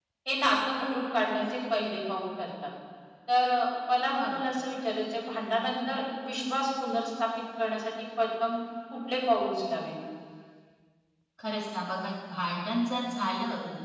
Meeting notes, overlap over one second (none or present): none